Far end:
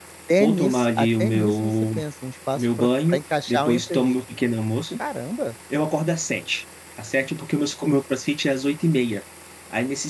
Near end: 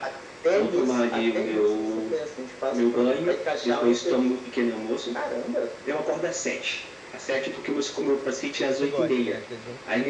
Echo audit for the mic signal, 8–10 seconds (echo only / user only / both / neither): both